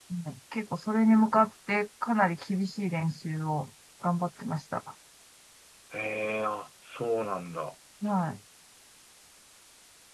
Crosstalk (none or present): none